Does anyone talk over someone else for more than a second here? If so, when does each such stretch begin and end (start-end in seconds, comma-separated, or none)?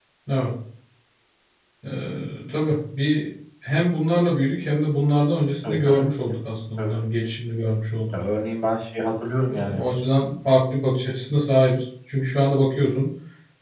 none